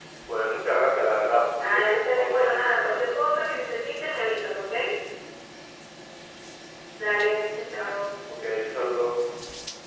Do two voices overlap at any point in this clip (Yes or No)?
Yes